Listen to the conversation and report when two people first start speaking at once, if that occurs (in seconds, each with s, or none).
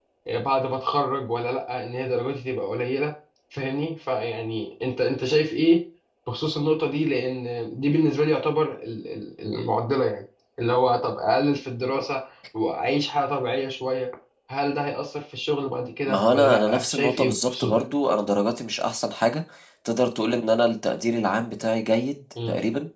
16.1 s